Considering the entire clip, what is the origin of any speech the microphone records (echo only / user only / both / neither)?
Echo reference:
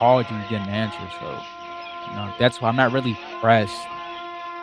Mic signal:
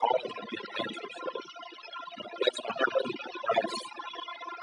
echo only